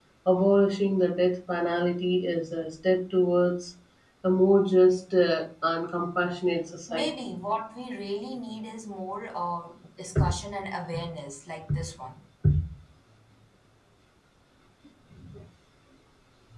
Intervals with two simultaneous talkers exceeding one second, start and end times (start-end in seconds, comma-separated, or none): none